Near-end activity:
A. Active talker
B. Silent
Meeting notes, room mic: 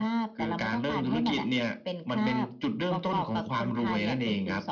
B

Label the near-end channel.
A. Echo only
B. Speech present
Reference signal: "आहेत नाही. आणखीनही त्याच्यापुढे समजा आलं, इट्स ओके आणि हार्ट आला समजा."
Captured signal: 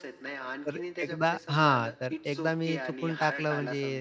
B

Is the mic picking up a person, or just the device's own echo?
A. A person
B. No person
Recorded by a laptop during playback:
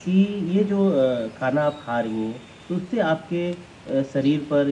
B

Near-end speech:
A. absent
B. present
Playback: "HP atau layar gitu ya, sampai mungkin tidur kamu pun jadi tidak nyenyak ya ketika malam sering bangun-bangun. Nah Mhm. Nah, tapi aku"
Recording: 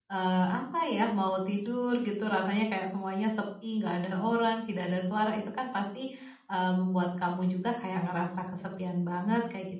B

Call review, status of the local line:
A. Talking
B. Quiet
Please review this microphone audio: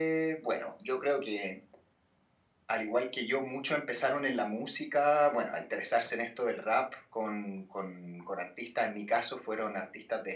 B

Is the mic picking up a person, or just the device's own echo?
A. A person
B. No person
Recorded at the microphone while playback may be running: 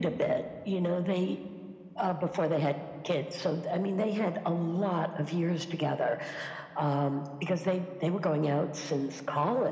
B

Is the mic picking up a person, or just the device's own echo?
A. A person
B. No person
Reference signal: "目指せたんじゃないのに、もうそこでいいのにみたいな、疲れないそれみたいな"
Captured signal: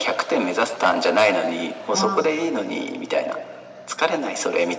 A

